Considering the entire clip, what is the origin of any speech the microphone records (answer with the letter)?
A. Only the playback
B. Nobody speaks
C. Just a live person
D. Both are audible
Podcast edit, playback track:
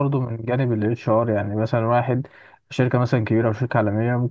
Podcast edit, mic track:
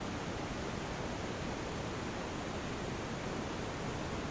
B